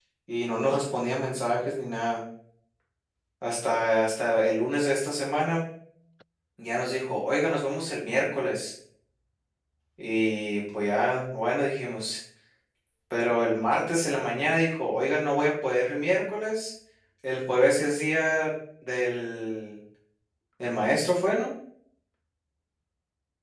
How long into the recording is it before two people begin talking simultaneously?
none

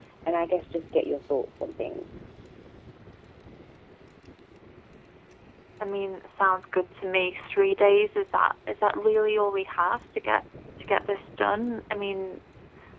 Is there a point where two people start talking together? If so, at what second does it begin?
none

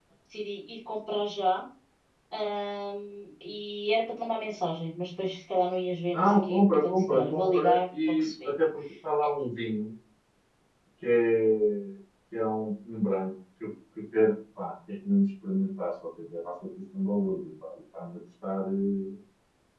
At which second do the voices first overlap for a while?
6.1 s

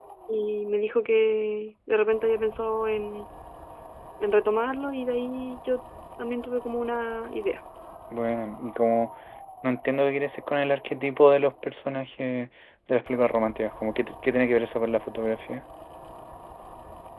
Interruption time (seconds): none

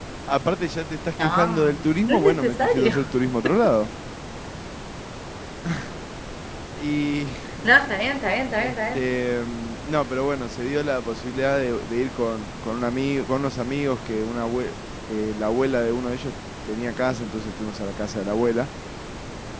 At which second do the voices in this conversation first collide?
1.2 s

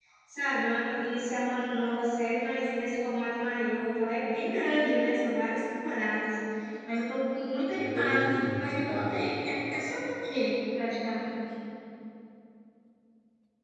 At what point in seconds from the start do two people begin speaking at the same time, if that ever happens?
7.7 s

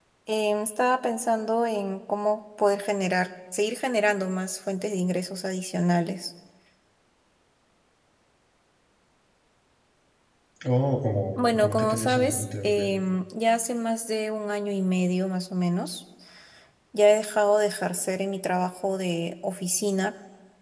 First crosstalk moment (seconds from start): 11.4 s

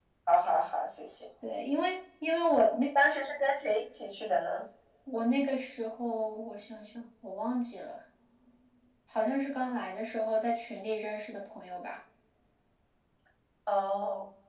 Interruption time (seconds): none

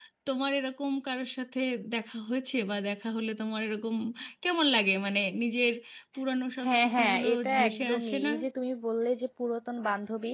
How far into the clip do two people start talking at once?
6.7 s

